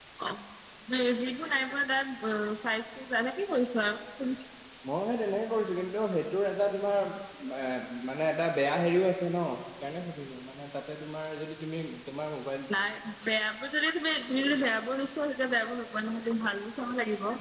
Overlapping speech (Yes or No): No